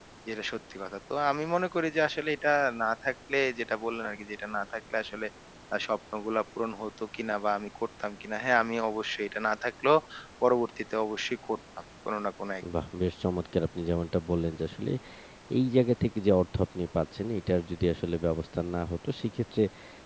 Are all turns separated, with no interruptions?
Yes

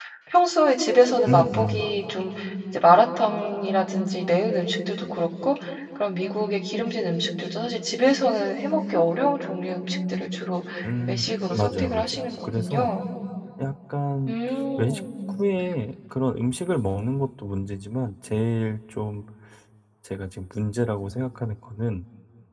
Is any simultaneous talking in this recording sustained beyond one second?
Yes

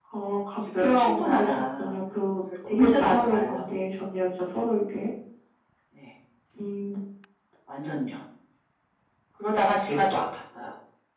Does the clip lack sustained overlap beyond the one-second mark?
No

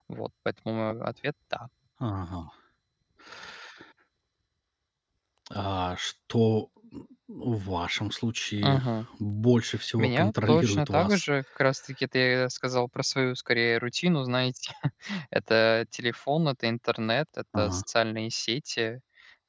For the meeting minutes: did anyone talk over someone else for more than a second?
Yes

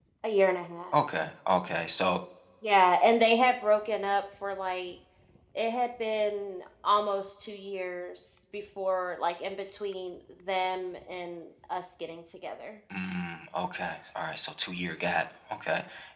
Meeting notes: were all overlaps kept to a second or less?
Yes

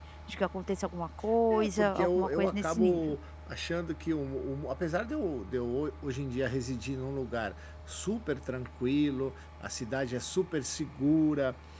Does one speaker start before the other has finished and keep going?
Yes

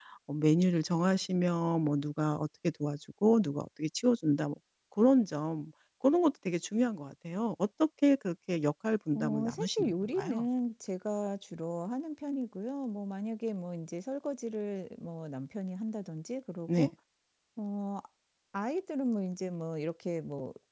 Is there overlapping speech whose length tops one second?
Yes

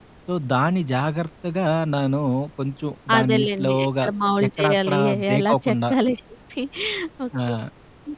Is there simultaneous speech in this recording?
Yes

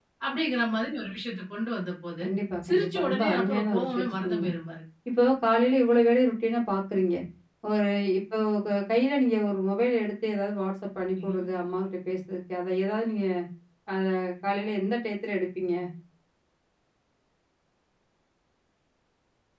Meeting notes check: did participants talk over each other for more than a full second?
Yes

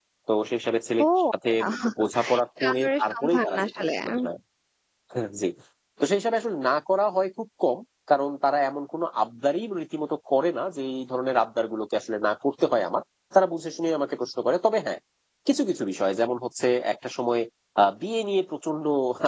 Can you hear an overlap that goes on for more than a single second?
Yes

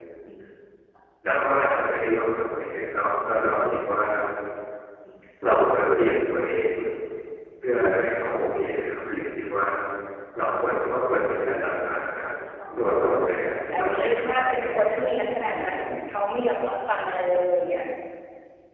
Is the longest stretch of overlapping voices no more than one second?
No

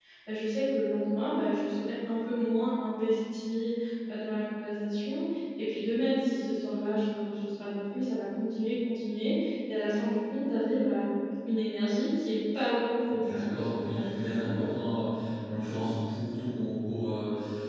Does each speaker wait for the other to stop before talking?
No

